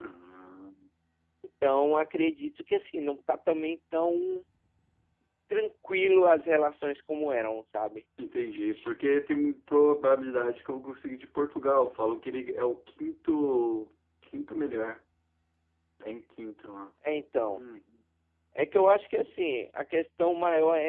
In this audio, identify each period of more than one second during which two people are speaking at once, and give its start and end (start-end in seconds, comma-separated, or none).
none